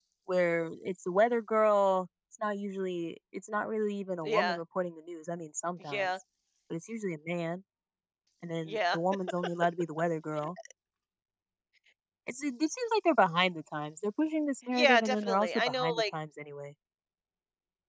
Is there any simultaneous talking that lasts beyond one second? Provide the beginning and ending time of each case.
14.7-16.0

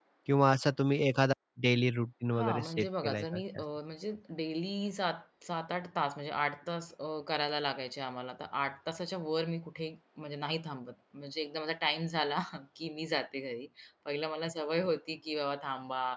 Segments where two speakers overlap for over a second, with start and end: 2.4-3.6

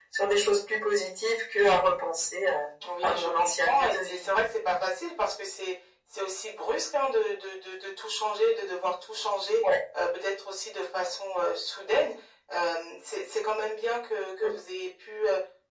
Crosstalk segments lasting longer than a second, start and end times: 3.0-4.3

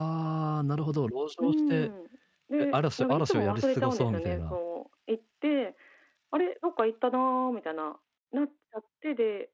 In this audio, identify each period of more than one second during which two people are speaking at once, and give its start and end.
2.6-4.6

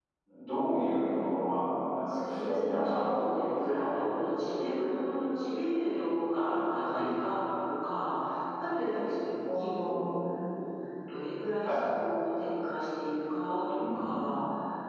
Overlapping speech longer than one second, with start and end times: 2.1-4.0

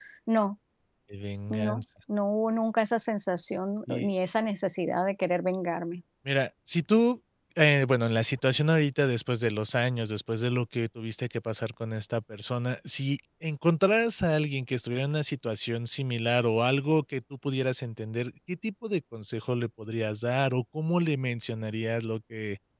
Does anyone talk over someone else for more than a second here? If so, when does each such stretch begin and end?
none

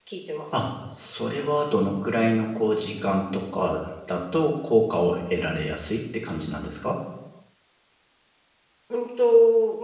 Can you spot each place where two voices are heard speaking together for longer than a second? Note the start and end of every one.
none

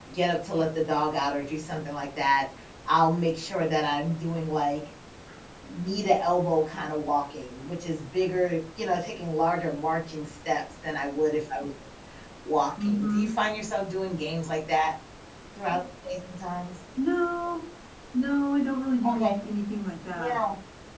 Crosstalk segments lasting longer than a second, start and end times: none

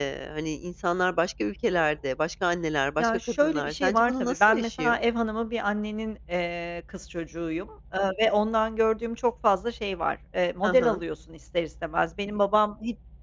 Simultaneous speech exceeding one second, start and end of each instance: 3.0-5.0

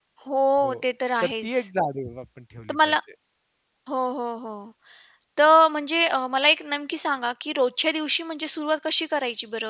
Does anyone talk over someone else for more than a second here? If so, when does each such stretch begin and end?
none

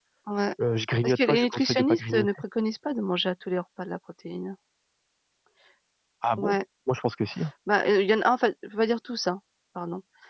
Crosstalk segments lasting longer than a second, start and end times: 1.0-2.3

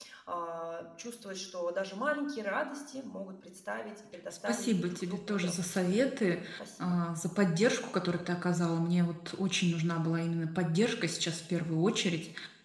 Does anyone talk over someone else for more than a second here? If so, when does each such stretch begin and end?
4.5-6.0

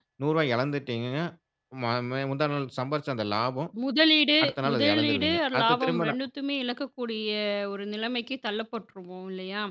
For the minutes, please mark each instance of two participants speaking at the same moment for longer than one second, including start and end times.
4.4-6.2

